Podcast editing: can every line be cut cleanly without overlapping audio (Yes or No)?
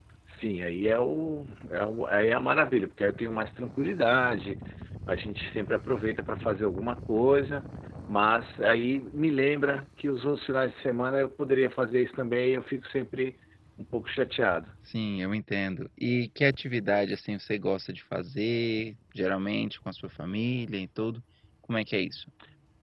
Yes